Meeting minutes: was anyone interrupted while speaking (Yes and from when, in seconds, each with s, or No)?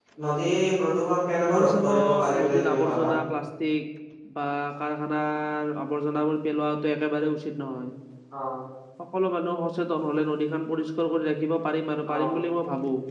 Yes, from 1.5 s